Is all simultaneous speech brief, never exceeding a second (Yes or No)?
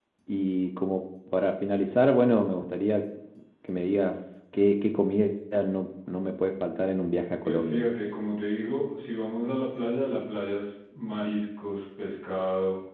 Yes